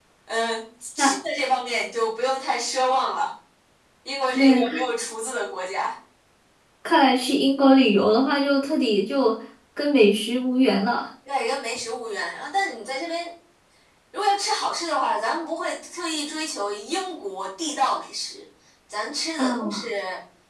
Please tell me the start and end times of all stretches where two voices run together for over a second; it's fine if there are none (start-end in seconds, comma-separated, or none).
none